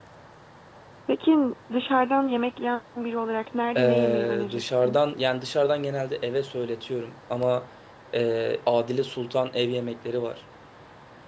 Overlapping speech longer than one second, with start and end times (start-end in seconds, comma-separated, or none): 3.8-5.0